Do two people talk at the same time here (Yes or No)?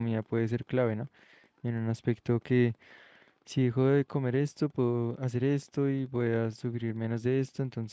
No